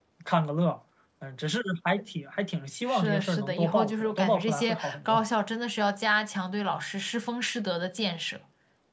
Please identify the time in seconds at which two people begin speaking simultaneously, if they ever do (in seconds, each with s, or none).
2.9 s